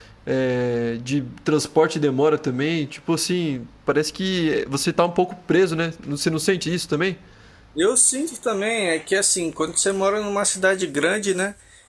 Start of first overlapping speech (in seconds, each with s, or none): none